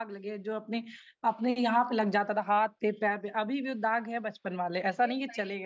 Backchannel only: No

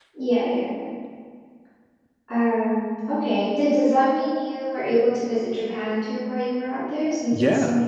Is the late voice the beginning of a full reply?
Yes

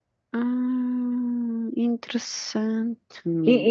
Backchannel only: No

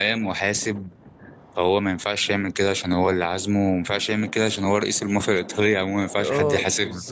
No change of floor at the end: No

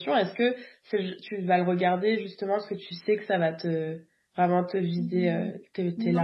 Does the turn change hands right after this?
Yes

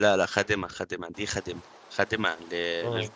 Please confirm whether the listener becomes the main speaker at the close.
No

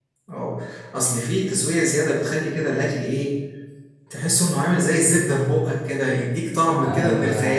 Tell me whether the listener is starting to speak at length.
Yes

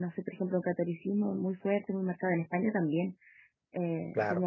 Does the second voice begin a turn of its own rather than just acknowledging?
No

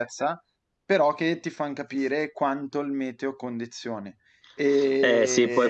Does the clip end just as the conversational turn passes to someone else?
Yes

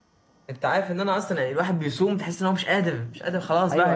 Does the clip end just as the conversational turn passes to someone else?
Yes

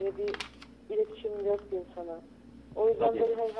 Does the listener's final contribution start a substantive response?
No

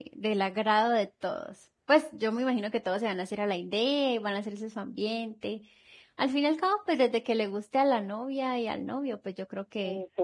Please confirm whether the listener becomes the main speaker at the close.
Yes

